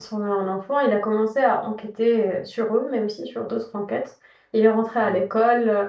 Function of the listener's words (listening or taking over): listening